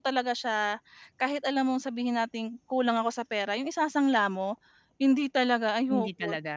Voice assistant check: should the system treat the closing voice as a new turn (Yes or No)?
No